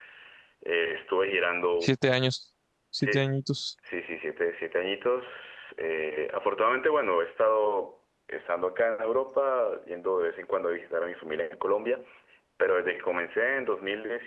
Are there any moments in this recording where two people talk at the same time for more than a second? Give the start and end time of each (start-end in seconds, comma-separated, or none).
none